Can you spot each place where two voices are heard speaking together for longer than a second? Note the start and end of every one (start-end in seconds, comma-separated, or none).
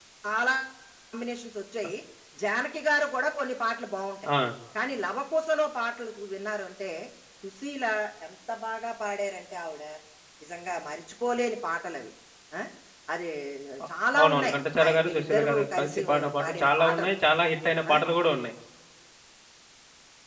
14.1-17.1